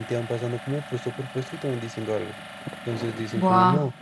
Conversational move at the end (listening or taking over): listening